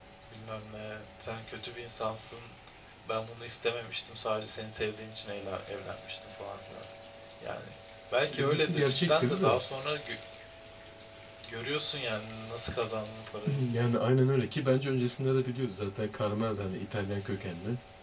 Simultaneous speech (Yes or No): Yes